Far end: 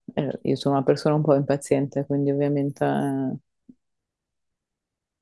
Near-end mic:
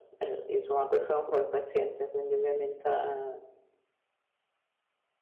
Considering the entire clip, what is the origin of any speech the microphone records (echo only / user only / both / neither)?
echo only